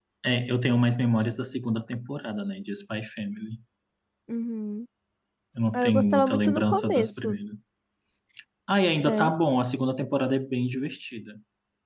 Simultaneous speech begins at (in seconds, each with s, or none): 5.7 s